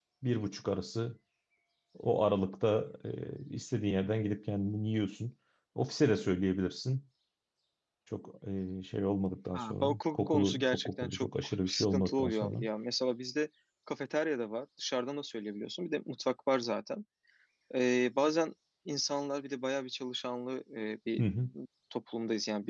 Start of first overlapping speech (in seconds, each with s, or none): 9.5 s